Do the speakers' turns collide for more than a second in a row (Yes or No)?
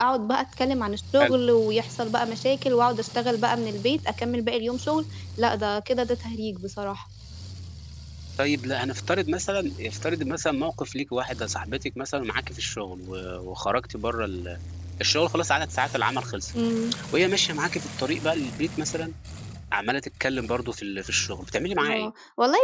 No